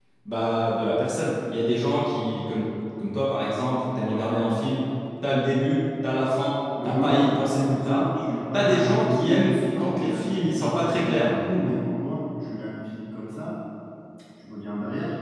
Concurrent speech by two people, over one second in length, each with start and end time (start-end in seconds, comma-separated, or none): 6.8-8.1, 8.5-11.3